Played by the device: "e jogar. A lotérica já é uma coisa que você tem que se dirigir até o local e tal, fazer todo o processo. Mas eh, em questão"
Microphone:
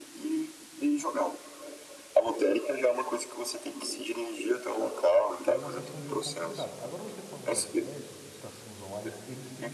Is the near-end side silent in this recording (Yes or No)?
No